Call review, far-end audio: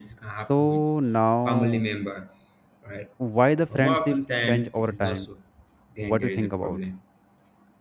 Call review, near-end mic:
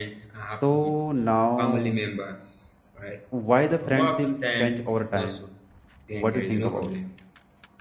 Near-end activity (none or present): present